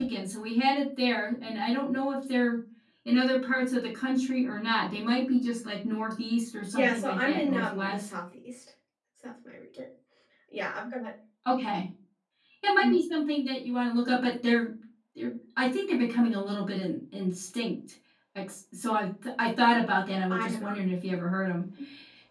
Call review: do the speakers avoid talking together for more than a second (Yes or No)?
No